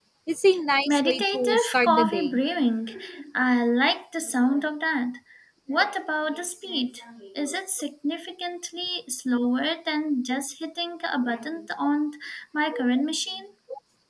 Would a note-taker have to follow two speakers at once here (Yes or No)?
Yes